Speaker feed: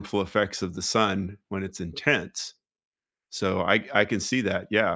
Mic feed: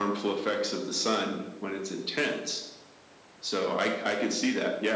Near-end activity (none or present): none